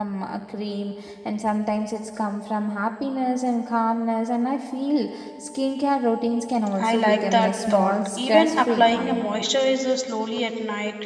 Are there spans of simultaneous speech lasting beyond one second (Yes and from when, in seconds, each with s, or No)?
Yes, from 6.8 s